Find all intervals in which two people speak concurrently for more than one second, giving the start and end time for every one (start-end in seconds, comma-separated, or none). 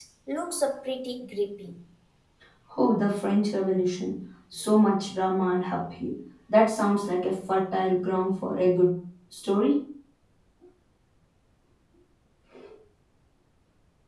none